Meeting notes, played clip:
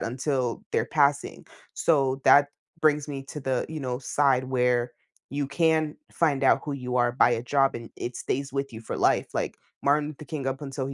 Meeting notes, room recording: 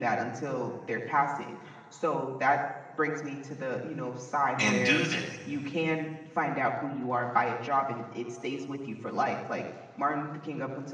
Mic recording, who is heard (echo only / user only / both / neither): both